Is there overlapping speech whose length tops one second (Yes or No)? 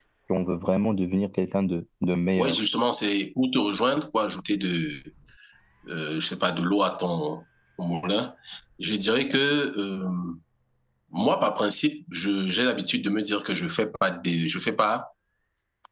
No